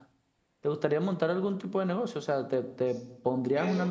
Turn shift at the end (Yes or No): Yes